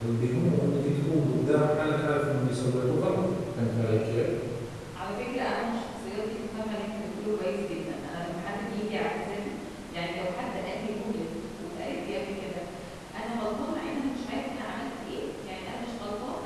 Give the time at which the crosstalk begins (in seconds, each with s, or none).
none